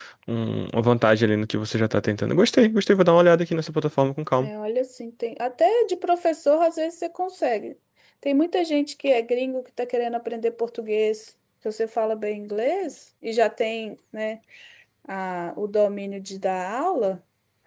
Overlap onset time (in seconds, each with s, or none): none